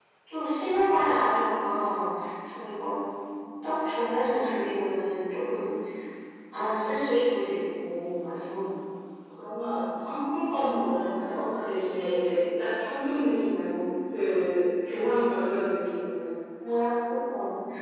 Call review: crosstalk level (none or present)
none